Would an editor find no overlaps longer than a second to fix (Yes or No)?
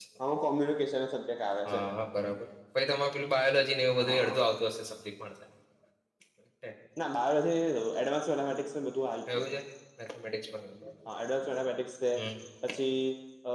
Yes